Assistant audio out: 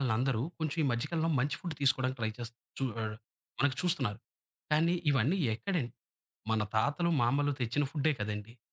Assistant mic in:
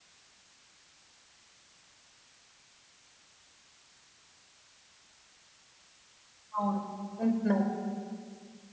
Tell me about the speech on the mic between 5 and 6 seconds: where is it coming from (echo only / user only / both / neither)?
neither